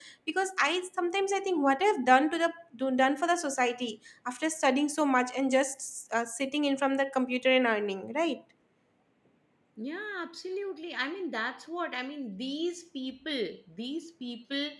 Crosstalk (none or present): none